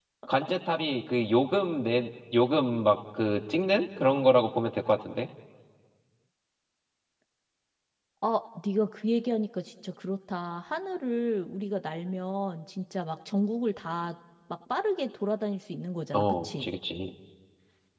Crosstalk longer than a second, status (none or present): none